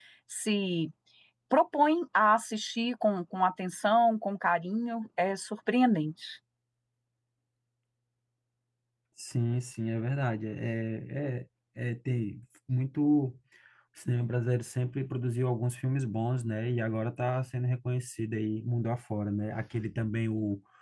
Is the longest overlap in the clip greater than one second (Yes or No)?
No